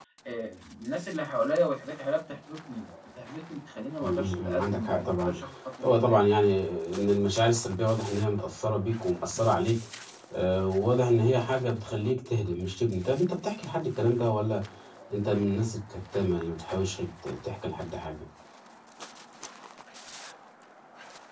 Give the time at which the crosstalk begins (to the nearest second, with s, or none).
4 s